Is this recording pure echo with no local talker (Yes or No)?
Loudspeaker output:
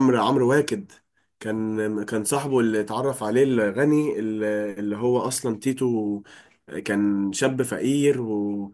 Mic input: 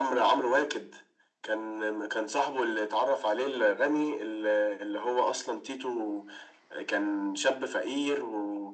Yes